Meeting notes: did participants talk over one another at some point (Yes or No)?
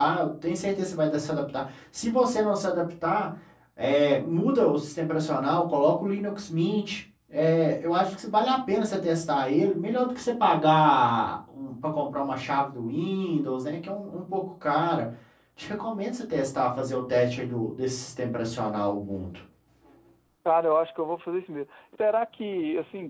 No